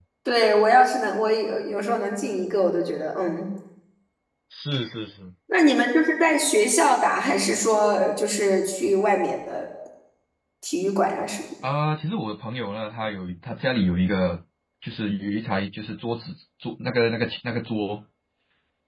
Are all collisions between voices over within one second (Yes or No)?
Yes